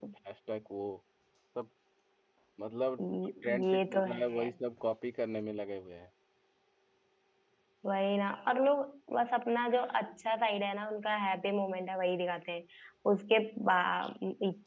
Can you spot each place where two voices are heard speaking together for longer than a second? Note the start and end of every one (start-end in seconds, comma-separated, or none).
3.0-4.5